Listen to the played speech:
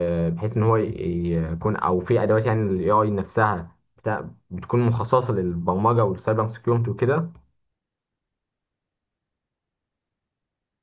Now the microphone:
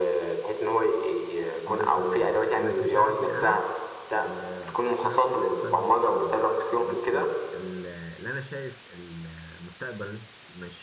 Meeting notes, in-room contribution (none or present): present